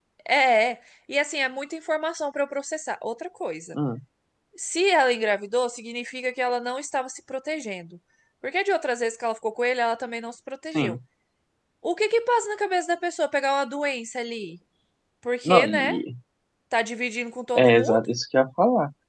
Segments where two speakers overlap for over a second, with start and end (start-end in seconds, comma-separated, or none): none